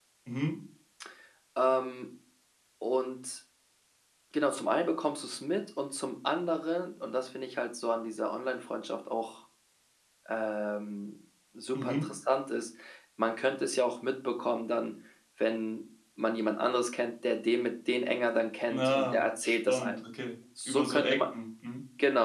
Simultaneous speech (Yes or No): Yes